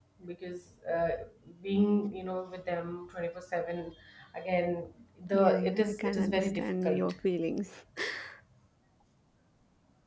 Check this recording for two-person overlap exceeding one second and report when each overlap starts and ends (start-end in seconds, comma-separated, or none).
5.3-7.1